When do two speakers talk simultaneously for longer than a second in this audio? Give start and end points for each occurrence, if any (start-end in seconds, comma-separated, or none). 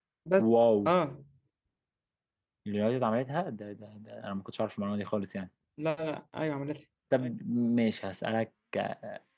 none